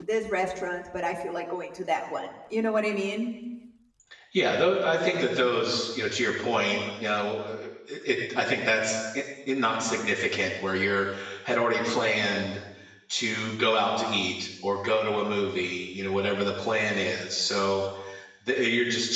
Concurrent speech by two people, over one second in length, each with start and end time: none

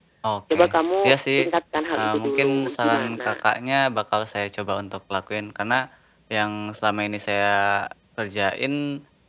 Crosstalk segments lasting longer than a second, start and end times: 2.0-3.4

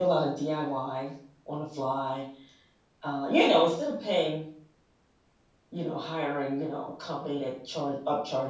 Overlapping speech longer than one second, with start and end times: none

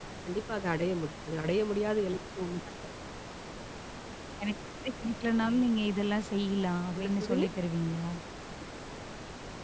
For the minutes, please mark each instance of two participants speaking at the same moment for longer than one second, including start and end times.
none

